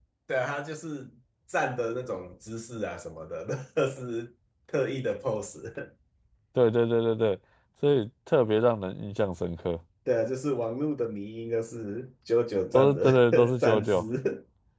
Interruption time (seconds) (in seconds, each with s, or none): 12.7 s